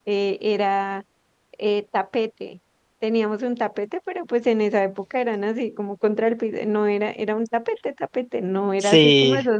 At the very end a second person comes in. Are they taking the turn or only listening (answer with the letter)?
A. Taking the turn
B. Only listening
B